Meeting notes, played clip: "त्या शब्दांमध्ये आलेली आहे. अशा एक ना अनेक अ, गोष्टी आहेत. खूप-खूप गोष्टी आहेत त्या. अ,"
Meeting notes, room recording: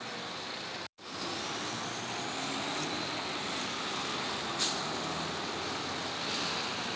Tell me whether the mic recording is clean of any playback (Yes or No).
Yes